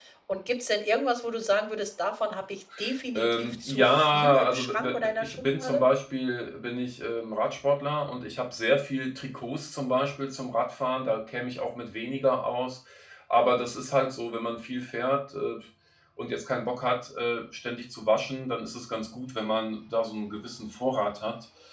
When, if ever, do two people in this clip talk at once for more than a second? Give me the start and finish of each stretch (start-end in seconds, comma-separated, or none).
3.1-5.8